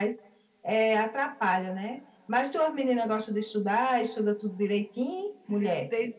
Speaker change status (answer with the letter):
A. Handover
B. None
A